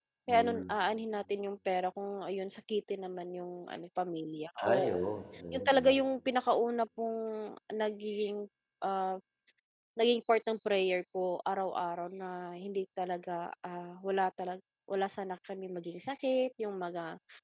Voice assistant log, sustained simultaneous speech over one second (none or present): none